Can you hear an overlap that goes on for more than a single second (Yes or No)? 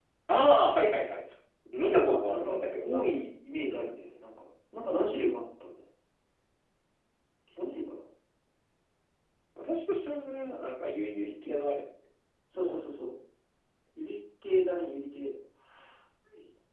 Yes